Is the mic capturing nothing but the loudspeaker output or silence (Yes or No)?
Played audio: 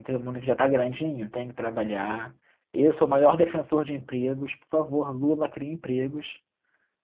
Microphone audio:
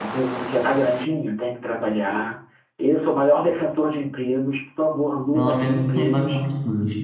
No